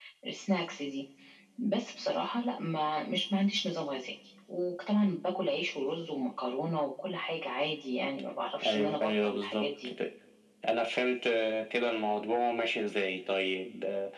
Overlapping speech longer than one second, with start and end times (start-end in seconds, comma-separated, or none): 8.7-9.9